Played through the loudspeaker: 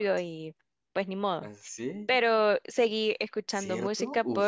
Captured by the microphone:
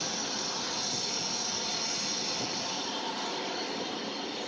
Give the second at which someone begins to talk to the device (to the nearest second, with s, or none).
none